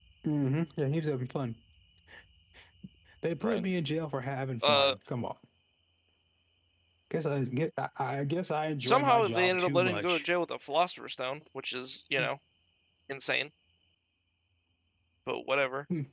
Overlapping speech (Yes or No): Yes